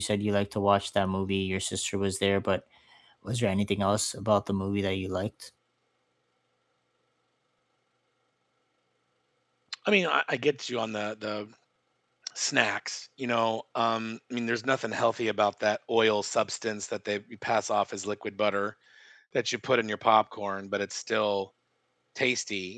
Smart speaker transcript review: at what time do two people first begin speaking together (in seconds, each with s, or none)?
none